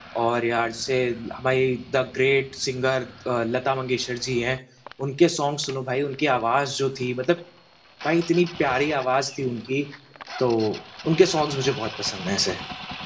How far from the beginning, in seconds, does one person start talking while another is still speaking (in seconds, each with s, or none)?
none